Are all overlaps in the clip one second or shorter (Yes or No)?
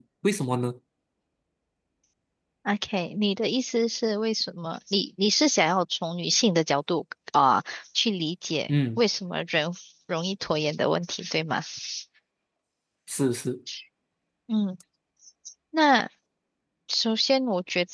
Yes